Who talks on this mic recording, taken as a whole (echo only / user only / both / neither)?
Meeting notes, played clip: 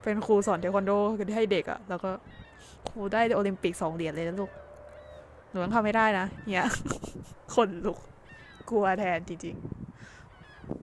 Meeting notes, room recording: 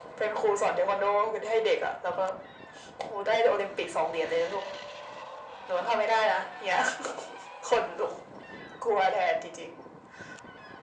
echo only